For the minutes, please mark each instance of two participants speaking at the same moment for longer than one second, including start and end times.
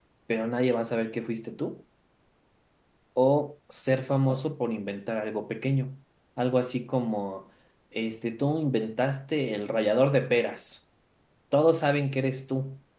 none

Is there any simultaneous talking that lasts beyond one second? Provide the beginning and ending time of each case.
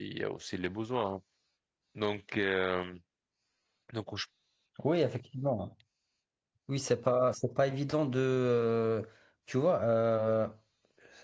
none

